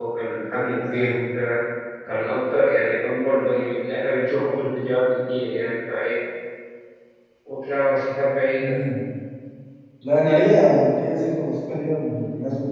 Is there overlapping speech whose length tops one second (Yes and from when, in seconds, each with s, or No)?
No